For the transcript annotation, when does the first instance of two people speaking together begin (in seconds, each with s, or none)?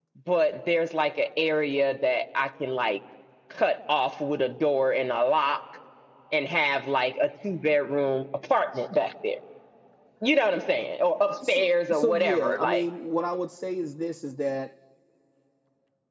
11.4 s